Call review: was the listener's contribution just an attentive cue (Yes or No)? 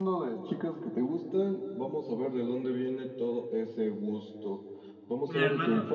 Yes